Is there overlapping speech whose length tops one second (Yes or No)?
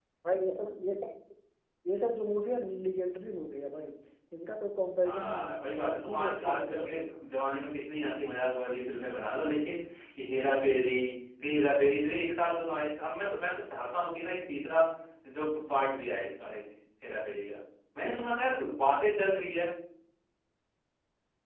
Yes